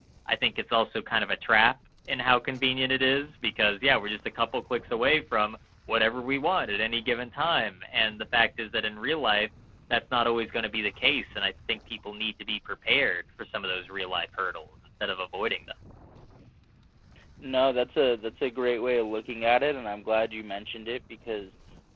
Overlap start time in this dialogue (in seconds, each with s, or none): none